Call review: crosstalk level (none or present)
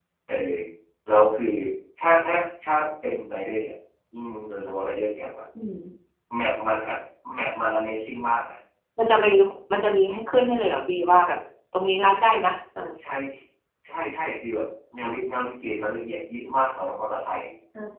none